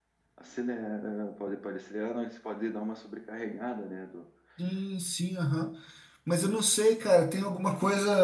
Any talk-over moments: No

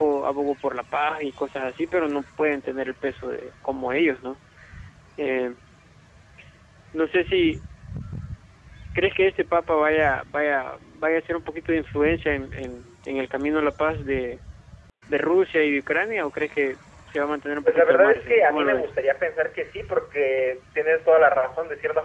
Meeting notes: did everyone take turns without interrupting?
No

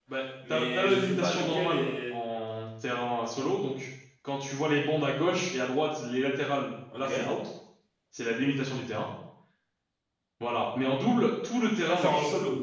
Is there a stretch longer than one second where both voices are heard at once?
Yes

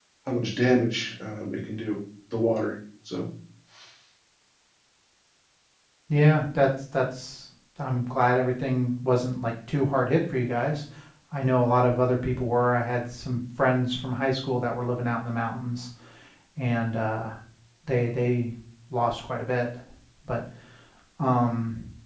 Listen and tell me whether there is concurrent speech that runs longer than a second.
No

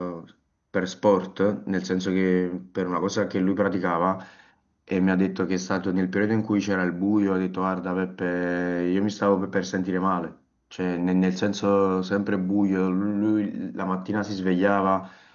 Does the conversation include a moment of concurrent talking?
No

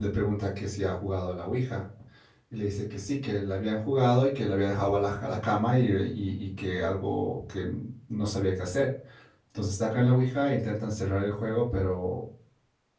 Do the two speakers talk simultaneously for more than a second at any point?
No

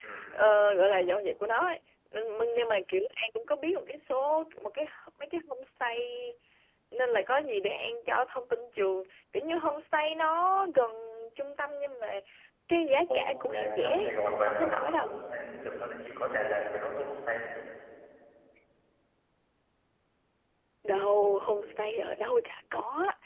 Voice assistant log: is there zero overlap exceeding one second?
No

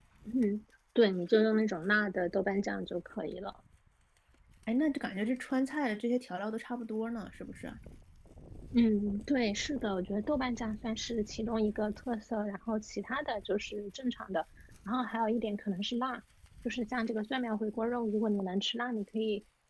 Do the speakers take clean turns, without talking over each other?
Yes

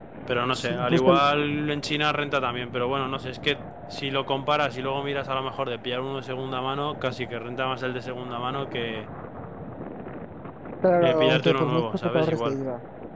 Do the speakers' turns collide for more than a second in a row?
Yes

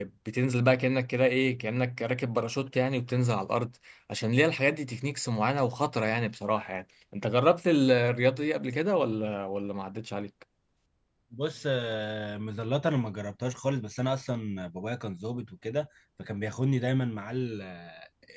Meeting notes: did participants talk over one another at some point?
No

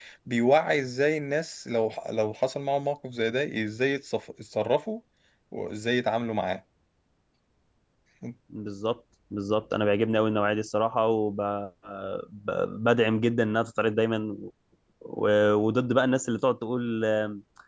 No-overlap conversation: Yes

